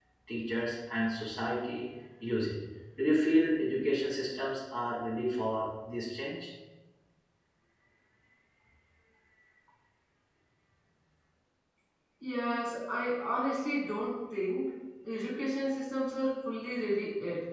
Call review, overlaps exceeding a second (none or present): none